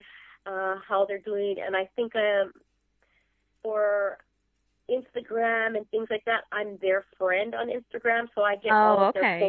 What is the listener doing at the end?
listening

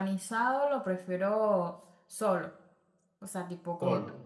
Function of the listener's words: listening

